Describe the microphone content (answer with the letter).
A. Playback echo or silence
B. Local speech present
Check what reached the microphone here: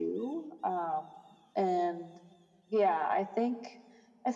A